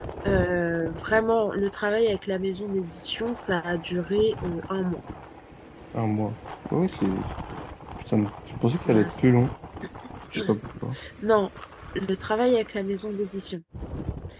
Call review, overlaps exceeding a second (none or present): none